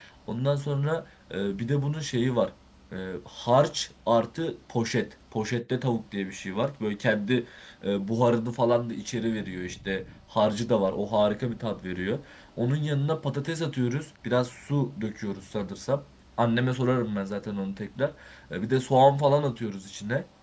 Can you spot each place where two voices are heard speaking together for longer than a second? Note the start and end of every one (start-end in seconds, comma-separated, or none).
none